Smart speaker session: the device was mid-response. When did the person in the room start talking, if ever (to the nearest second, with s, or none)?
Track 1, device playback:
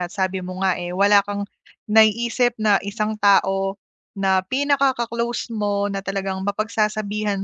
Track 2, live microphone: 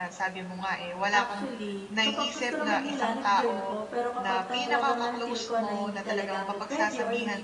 1 s